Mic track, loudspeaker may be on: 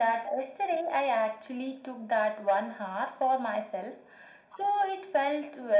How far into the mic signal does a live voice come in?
none

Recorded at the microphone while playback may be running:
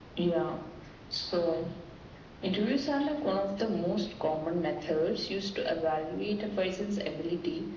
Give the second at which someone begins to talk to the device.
none

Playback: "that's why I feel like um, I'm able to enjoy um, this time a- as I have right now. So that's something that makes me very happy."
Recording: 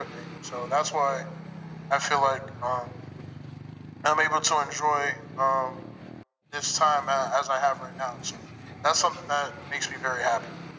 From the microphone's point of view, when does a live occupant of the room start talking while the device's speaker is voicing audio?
none

